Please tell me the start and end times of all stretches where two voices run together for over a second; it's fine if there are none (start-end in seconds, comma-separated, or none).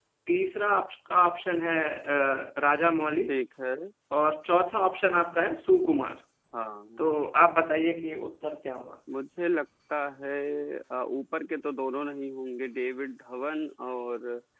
none